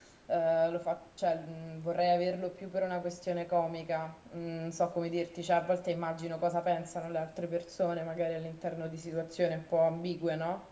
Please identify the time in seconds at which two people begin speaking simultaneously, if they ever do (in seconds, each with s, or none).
none